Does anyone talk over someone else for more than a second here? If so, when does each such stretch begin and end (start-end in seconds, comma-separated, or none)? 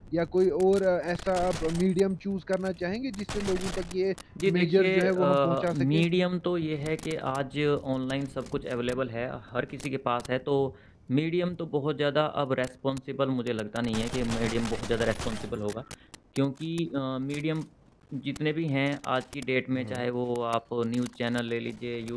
4.6-6.0